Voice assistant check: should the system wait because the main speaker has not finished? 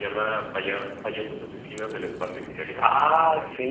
No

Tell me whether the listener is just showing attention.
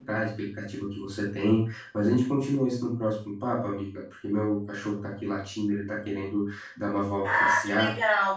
No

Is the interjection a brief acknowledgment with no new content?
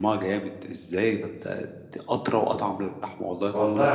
No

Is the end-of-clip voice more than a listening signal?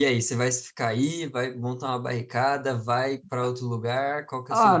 Yes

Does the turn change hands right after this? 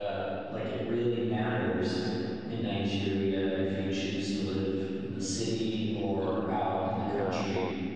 Yes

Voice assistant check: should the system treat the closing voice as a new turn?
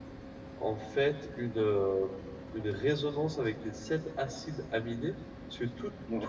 No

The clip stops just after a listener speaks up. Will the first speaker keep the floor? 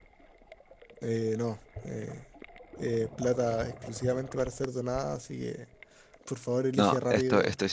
No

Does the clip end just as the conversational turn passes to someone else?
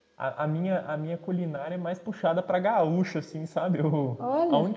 No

